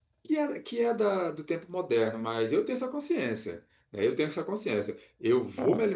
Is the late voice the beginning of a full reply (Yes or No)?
No